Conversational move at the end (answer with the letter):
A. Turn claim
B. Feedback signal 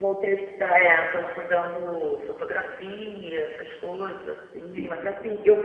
B